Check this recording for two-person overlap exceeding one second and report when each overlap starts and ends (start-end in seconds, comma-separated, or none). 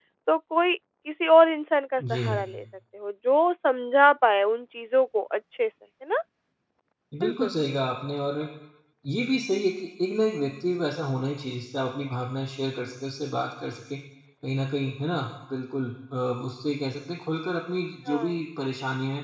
none